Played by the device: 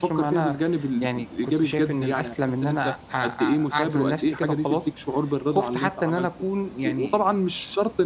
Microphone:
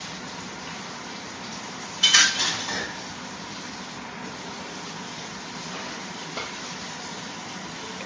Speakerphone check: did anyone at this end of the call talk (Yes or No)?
No